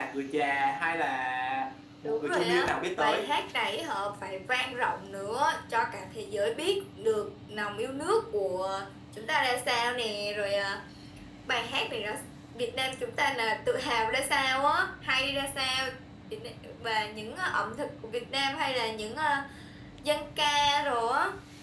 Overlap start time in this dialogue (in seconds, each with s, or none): 2.0 s